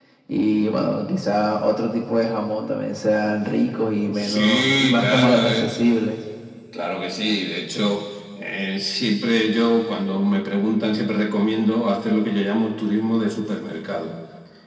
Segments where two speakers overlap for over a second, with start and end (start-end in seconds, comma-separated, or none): 4.1-5.7